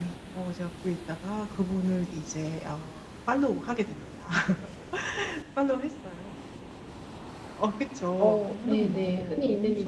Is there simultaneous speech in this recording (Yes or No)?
Yes